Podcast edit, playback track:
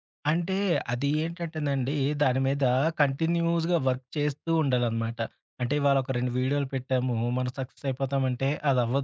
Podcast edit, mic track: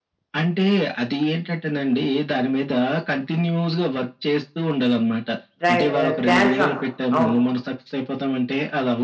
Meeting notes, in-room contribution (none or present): present